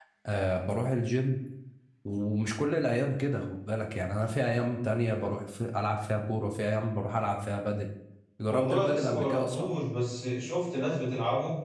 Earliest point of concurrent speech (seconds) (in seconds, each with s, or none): 8.5 s